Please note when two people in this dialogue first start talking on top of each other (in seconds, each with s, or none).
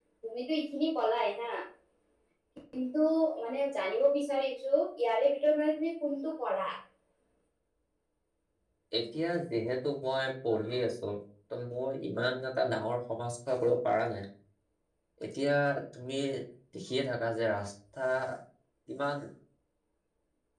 none